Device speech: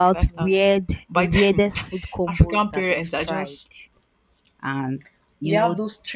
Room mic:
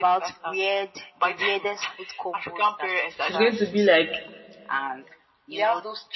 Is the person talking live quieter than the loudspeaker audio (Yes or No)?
No